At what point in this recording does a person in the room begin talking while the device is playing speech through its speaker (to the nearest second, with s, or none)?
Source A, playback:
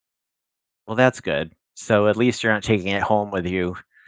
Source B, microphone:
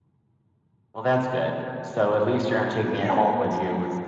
3 s